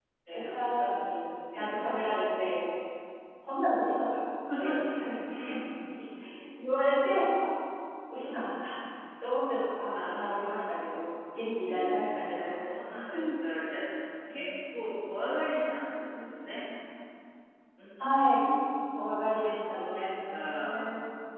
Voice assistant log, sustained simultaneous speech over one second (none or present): present